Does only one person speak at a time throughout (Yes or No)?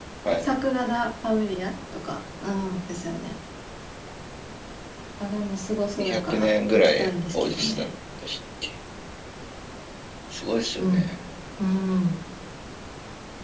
No